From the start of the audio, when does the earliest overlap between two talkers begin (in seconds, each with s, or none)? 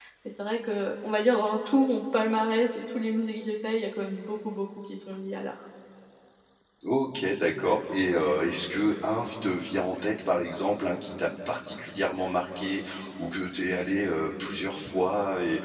none